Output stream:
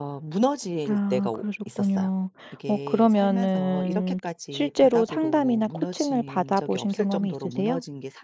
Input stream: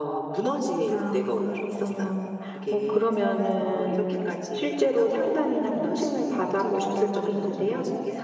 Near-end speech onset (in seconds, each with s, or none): none